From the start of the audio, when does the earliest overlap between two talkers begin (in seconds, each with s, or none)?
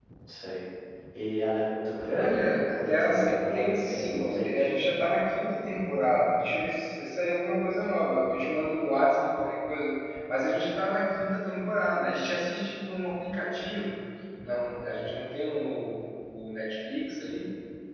2.2 s